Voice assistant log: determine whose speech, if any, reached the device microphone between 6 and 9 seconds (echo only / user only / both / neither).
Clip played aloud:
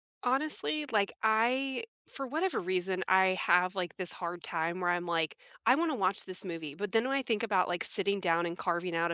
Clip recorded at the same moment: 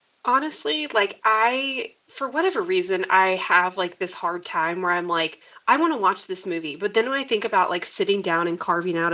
echo only